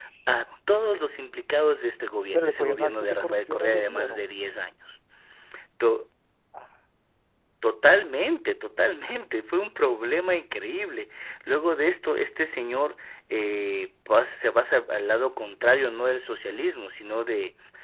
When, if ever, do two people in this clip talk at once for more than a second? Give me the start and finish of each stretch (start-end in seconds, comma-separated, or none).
2.3-4.2